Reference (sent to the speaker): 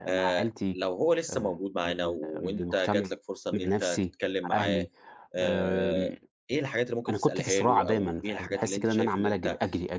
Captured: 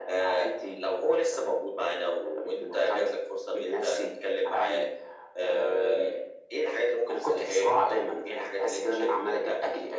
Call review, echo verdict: present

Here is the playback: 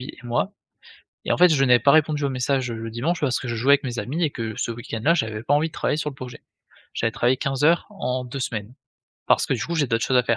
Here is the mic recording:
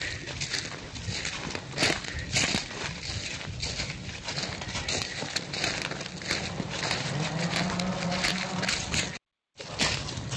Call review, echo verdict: none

